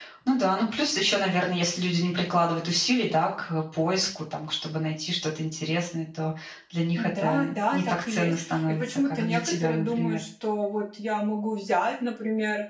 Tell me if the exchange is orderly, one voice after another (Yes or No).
No